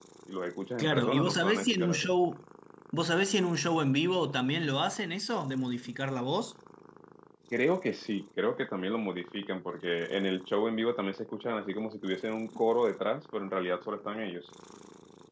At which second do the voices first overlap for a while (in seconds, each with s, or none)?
0.8 s